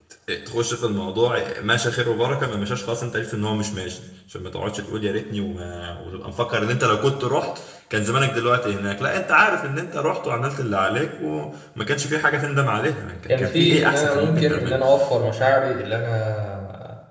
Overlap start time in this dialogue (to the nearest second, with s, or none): 13 s